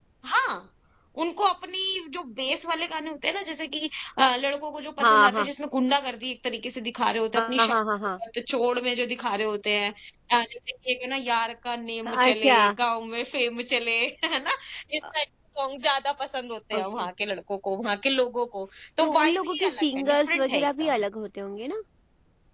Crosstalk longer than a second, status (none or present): present